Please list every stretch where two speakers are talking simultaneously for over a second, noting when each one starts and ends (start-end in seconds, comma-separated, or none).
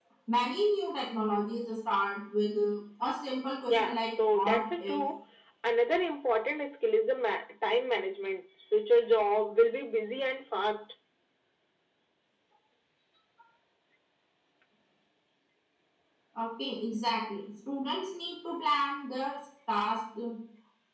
3.7-5.0